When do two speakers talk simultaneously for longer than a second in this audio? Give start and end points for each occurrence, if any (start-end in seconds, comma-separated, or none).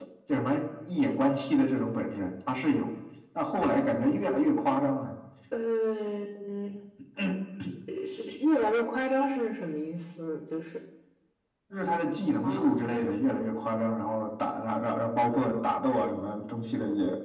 none